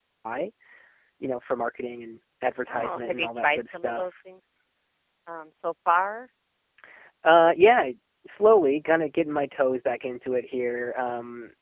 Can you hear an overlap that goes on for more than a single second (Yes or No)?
Yes